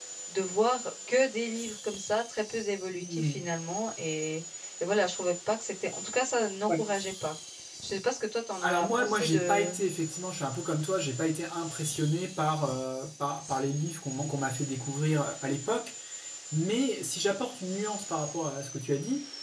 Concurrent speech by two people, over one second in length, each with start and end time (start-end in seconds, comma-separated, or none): 8.6-9.8